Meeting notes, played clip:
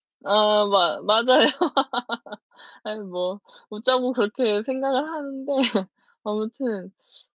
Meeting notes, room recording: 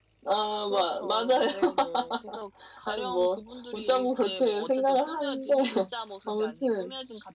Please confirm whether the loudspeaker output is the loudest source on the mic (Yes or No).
Yes